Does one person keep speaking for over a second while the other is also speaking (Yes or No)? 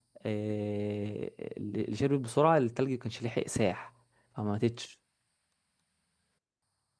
No